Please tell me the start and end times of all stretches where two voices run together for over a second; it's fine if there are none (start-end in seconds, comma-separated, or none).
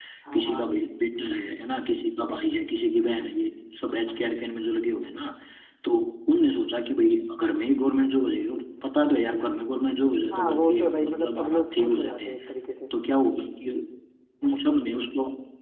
10.3-12.4